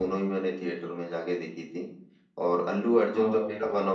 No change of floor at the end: Yes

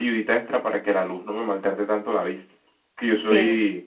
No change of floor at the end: Yes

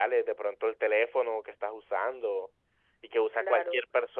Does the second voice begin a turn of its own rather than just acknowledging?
No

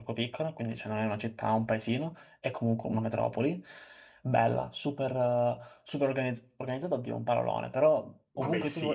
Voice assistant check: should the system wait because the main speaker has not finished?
Yes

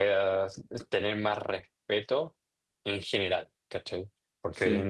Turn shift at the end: No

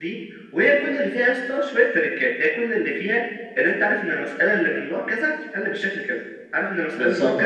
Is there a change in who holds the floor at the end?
No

